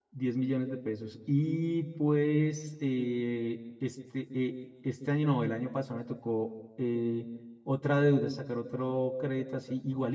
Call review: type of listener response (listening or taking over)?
listening